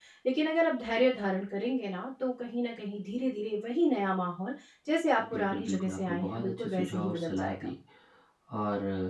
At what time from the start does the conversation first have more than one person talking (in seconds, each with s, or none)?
5.2 s